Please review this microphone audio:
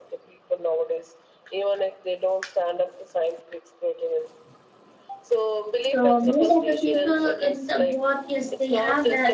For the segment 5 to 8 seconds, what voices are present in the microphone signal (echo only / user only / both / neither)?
both